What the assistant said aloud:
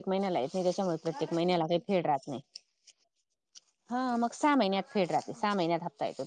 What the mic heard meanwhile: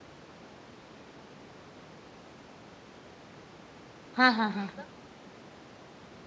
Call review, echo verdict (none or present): none